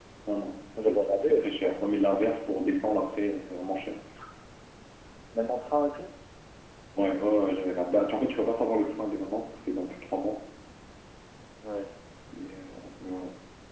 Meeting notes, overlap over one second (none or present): present